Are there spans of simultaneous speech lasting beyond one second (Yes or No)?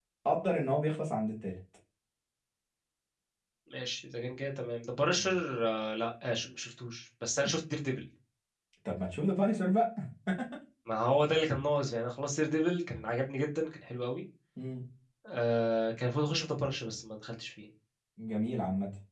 No